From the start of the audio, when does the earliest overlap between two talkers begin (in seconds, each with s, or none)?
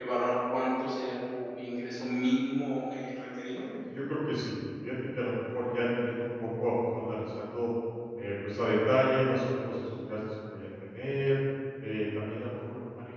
none